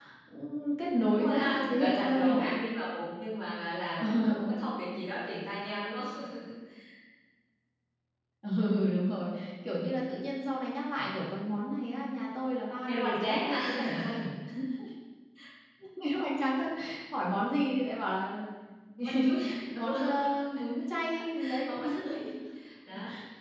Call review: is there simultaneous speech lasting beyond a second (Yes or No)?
Yes